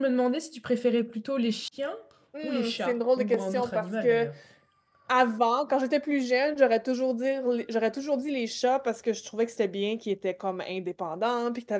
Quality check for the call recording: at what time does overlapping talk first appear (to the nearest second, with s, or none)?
2 s